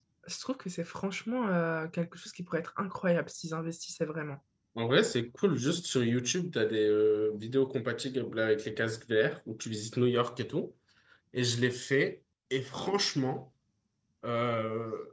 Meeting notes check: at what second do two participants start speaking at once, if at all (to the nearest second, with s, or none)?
none